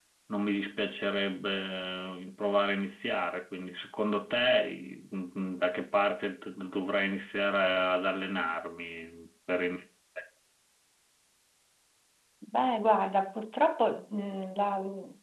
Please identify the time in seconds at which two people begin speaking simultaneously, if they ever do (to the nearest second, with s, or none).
none